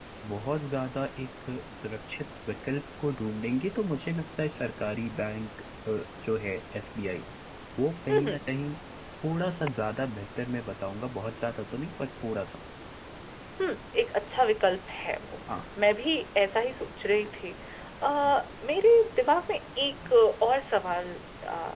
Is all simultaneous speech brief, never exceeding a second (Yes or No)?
Yes